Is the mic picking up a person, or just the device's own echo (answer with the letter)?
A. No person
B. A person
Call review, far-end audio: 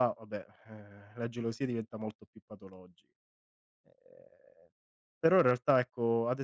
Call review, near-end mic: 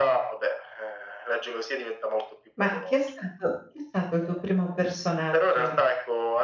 B